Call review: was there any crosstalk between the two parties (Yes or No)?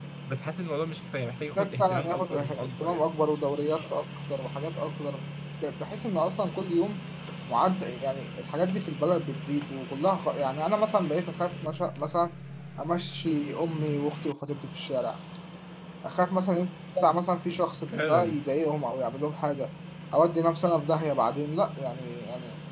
Yes